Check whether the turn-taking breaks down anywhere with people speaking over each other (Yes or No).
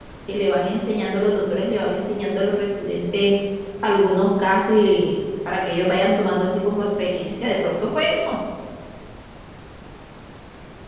No